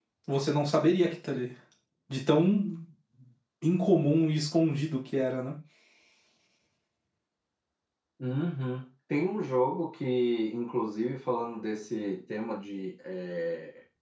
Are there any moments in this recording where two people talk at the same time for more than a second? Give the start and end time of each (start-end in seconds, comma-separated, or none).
none